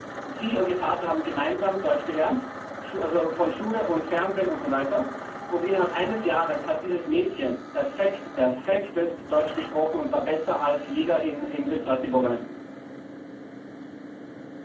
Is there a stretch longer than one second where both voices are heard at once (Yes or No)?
No